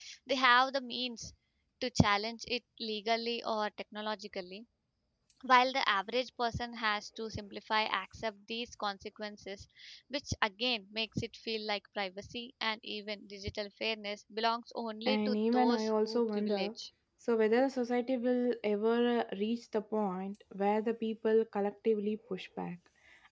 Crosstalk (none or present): present